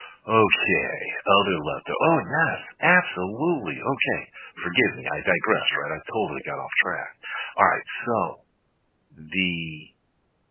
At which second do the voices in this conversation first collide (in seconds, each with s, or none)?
none